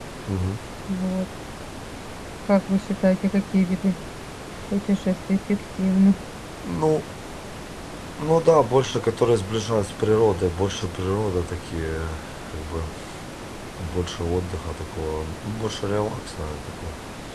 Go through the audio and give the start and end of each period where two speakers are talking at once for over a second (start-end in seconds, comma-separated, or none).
none